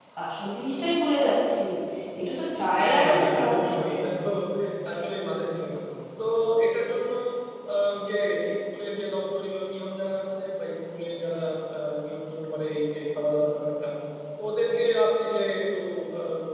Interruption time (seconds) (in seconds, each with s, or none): 2.7 s